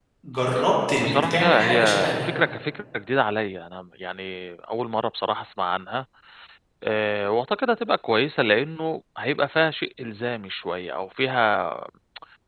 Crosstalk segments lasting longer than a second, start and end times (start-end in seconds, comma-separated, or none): 1.0-2.3